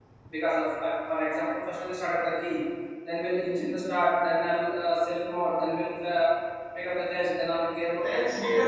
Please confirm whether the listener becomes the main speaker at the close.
No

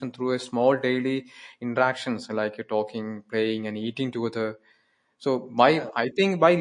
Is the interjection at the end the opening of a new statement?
No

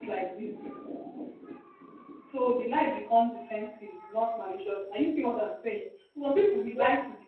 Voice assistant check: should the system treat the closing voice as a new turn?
No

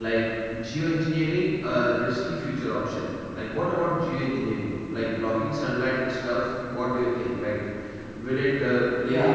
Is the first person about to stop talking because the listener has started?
Yes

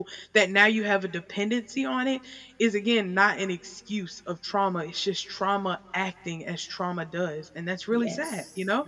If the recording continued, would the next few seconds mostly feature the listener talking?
Yes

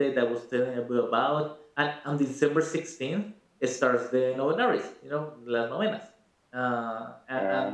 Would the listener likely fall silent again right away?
Yes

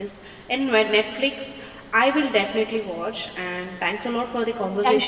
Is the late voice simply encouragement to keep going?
No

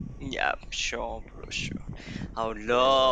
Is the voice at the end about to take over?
No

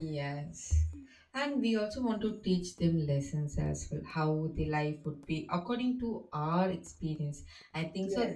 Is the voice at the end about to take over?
No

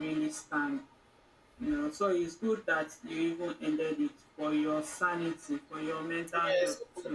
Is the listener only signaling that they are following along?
No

